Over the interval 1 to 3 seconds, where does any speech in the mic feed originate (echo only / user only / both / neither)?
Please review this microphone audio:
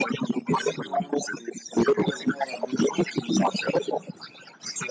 echo only